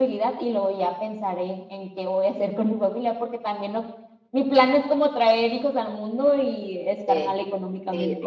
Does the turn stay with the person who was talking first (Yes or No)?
No